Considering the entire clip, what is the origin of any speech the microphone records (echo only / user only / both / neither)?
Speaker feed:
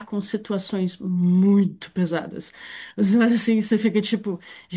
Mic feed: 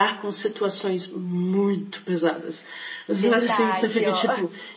both